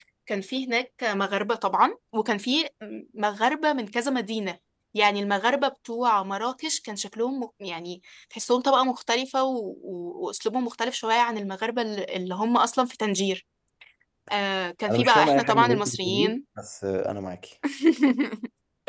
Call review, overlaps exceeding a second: present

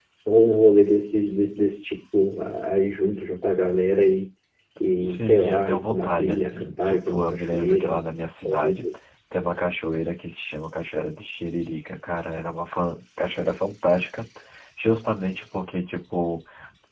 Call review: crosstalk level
present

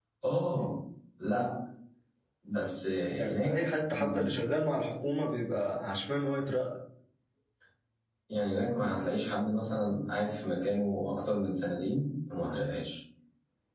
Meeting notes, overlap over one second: none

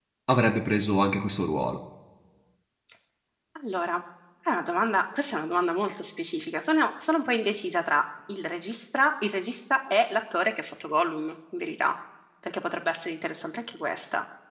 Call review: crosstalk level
none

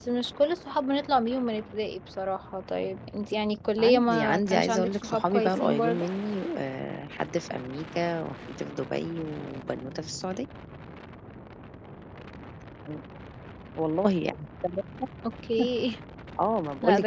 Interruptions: present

